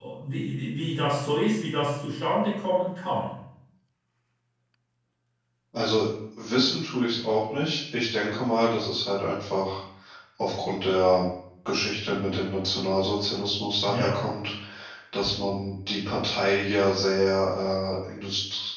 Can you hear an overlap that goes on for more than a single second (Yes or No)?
No